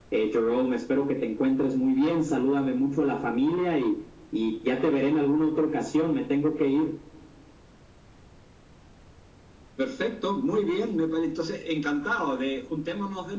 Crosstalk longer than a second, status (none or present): none